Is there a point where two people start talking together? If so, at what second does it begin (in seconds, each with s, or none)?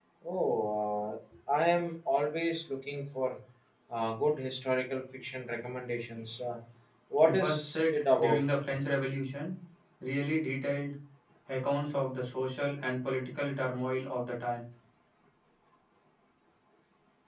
7.2 s